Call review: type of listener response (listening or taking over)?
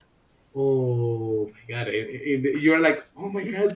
listening